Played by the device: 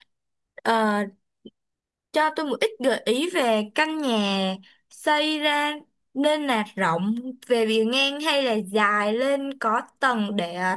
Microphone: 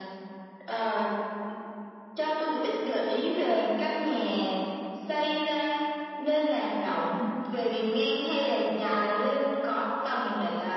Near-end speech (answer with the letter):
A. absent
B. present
A